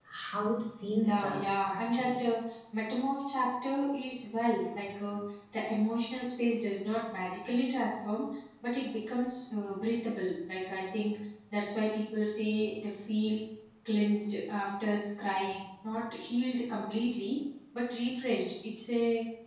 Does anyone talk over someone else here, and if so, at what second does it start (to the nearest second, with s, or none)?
1 s